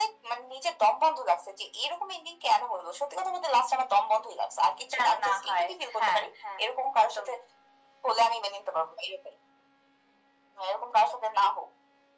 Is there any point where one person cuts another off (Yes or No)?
Yes